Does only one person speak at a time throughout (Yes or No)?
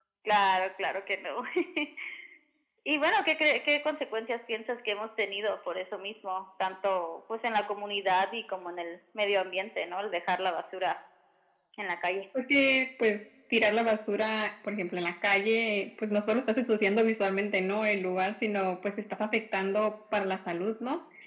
Yes